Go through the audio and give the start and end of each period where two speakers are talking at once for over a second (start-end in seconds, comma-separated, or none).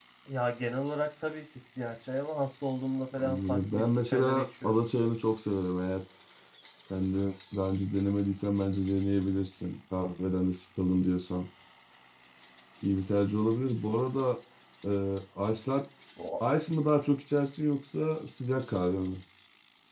3.2-4.8